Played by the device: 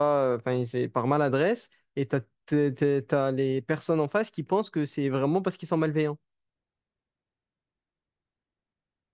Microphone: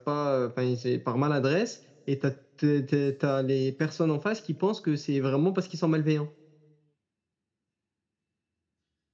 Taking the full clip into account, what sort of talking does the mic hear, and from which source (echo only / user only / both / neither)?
echo only